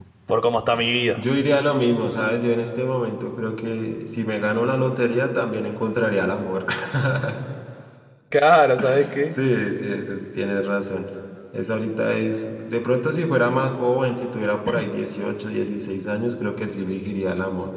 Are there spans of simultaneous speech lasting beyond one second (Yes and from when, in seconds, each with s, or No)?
No